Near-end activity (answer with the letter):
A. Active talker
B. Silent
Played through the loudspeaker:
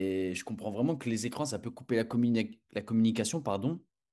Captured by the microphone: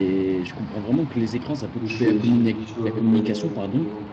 A